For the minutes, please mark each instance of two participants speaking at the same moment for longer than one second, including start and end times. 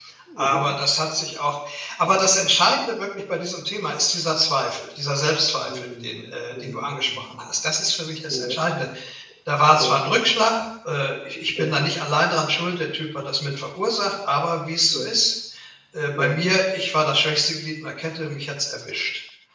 5.7-7.1

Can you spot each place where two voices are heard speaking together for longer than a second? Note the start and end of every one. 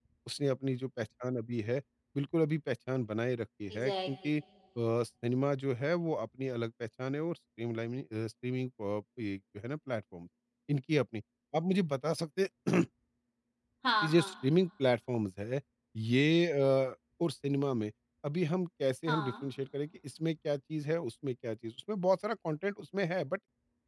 none

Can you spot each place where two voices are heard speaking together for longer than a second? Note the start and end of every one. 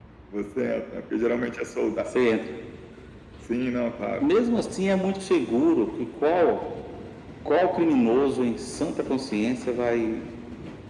none

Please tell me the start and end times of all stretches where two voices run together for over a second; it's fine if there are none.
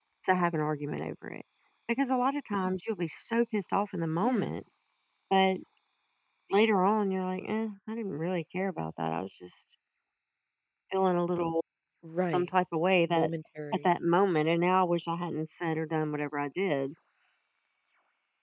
none

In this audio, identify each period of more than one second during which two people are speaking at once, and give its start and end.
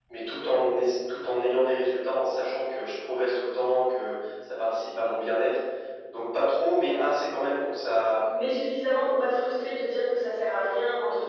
none

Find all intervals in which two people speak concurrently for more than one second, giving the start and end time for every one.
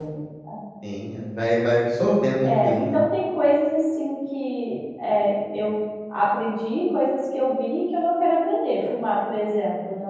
none

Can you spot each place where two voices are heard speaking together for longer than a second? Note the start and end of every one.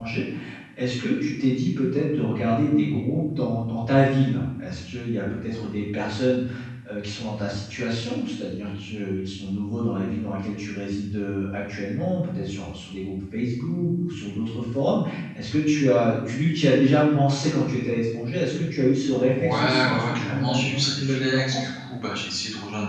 19.4-21.7

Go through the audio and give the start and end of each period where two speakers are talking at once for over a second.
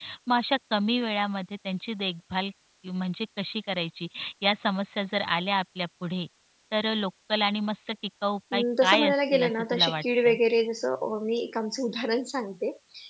8.5-10.4

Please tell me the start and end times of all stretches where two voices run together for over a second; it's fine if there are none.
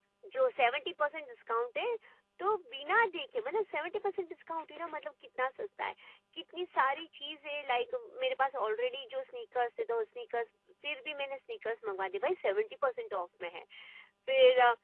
none

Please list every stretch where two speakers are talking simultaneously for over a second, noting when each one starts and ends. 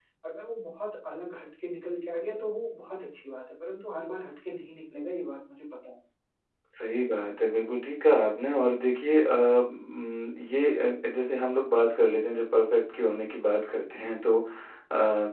none

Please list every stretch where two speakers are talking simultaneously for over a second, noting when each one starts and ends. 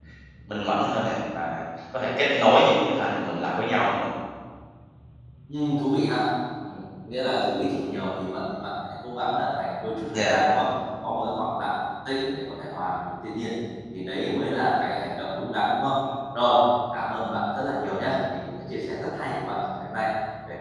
none

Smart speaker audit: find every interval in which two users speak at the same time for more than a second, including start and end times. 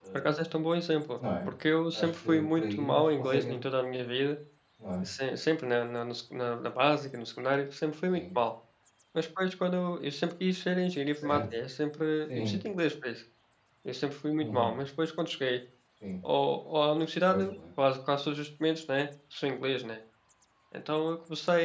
1.9-3.5

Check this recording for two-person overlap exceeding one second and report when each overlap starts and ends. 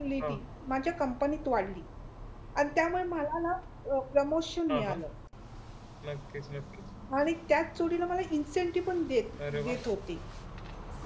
none

